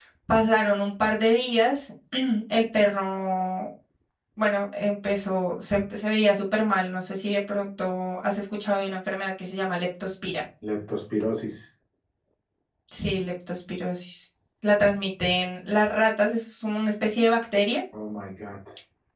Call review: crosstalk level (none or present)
none